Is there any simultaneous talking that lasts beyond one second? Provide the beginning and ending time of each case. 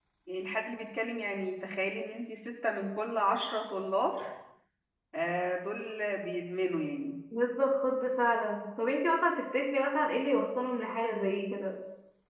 none

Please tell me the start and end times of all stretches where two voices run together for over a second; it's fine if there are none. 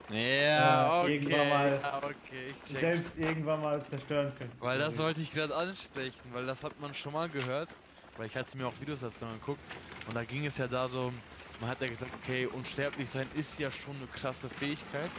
0.5-1.9

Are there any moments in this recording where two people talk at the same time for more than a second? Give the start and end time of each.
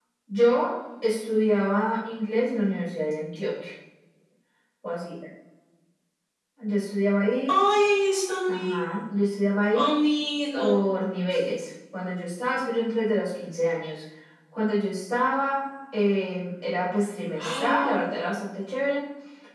none

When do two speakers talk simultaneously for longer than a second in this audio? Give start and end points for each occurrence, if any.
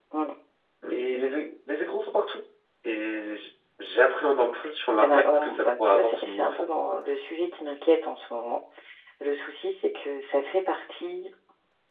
5.0-6.7

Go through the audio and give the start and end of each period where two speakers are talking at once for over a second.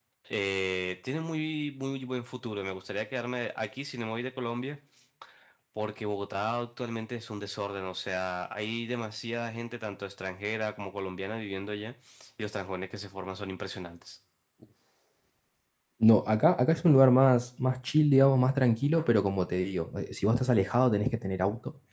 none

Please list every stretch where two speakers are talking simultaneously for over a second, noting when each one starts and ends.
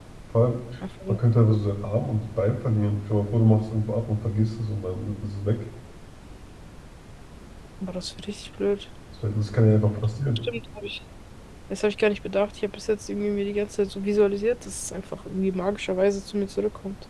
none

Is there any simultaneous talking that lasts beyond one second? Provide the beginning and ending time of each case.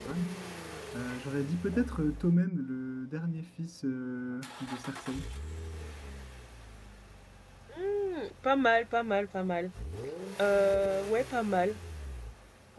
none

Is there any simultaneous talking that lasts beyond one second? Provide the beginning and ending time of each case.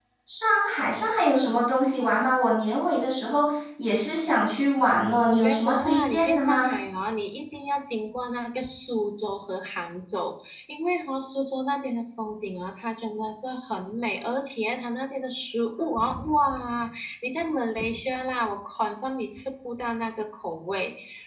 5.3-6.7

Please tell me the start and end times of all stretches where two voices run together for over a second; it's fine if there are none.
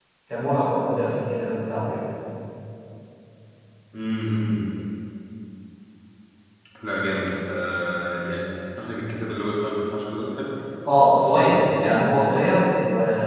none

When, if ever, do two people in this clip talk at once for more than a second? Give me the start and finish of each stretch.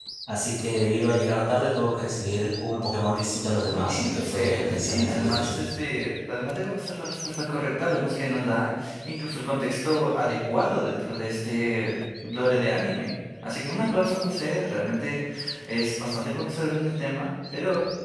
3.7-5.5

